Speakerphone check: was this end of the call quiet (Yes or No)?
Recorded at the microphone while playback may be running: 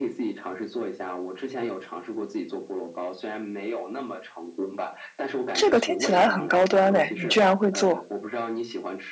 No